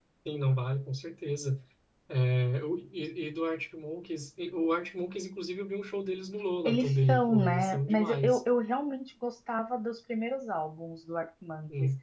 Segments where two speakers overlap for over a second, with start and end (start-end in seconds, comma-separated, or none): 6.7-8.4